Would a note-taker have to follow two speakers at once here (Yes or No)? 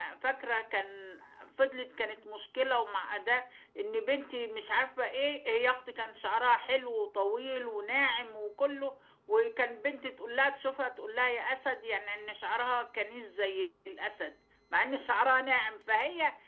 No